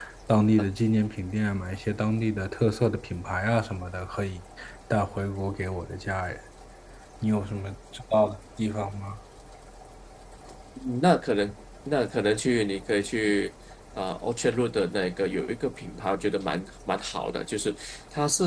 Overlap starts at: none

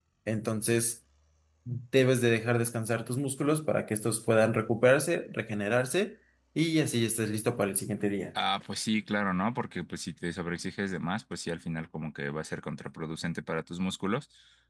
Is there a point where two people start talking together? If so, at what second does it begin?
none

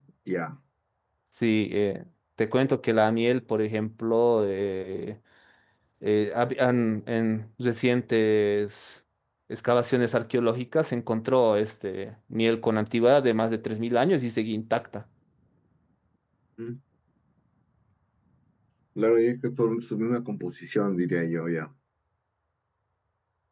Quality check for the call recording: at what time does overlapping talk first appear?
none

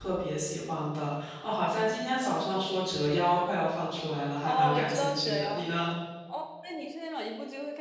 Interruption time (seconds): 4.4 s

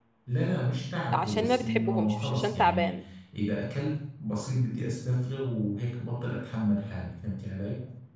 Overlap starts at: 1.1 s

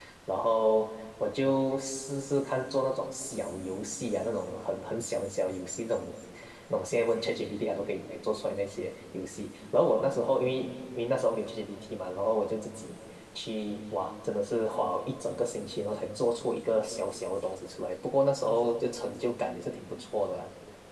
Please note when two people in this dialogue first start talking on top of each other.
none

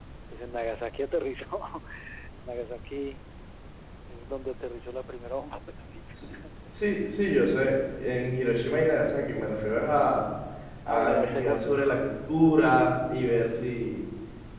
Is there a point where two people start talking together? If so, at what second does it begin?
10.9 s

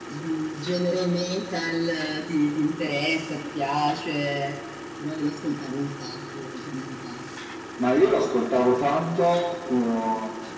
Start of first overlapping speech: none

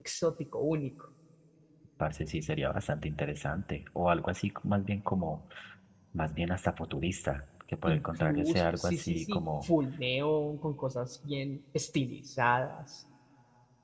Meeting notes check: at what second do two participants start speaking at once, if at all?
7.9 s

